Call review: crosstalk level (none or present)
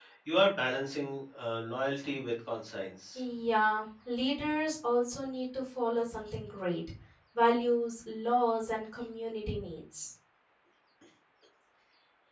none